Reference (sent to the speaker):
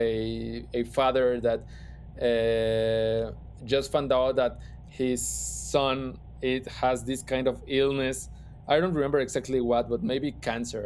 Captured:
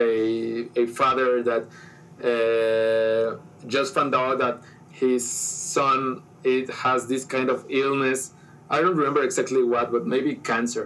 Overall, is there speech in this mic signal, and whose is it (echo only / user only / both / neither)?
echo only